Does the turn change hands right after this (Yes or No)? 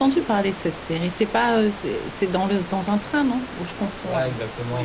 Yes